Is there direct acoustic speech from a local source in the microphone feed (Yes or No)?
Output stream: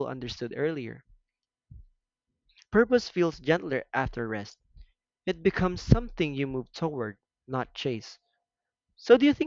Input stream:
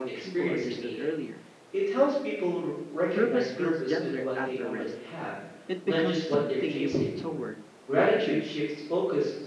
Yes